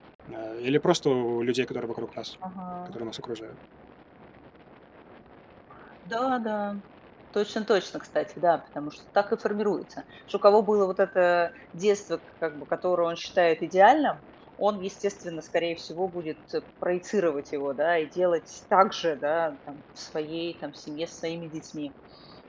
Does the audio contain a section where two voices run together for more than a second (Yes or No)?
No